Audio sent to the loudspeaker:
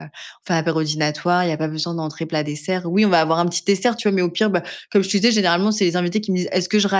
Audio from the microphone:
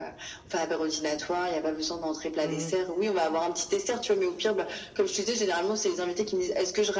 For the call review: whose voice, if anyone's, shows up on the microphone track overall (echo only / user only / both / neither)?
both